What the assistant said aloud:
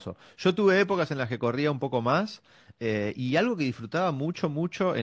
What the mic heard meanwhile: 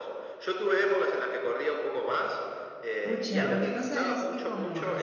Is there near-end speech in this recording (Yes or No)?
Yes